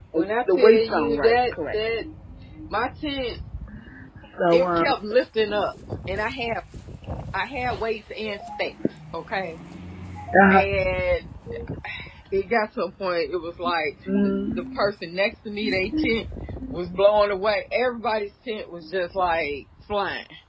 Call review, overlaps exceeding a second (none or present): present